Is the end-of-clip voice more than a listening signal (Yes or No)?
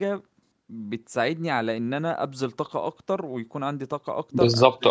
No